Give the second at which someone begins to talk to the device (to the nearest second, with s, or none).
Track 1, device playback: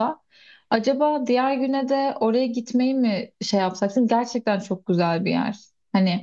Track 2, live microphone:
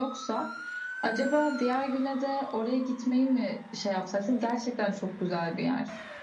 none